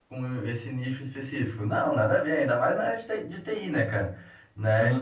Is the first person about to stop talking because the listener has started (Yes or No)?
Yes